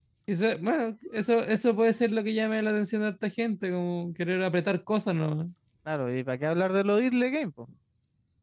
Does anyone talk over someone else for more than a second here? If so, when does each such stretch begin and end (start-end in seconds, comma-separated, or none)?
none